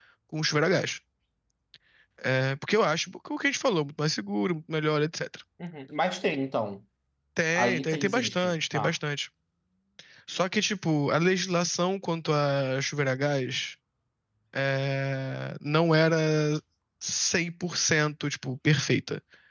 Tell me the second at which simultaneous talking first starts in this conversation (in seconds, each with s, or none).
7.6 s